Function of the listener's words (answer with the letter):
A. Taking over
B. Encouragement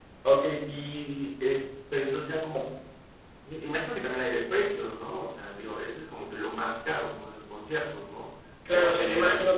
A